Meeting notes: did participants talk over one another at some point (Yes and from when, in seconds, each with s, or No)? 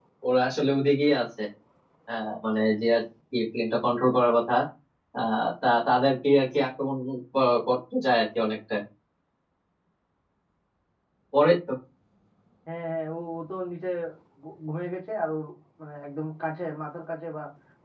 No